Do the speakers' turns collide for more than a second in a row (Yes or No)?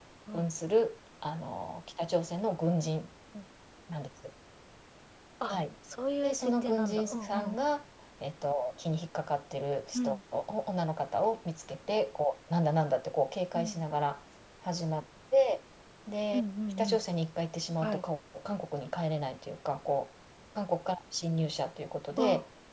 Yes